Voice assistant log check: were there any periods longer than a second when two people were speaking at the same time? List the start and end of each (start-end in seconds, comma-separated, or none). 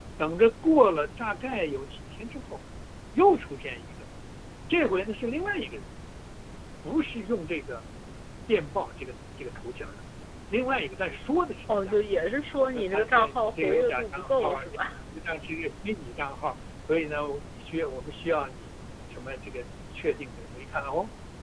12.6-14.7